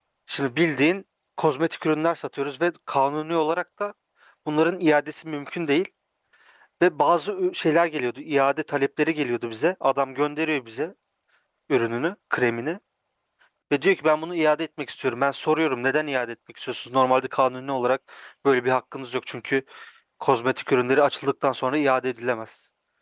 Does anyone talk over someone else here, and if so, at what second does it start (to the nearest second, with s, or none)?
none